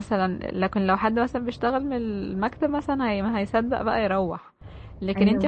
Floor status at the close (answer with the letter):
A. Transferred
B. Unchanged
B